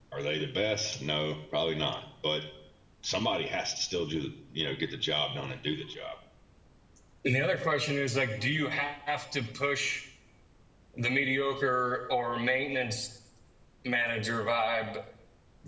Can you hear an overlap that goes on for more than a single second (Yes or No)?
No